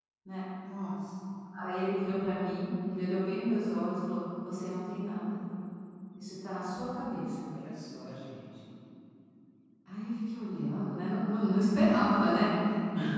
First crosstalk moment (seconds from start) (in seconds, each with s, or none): none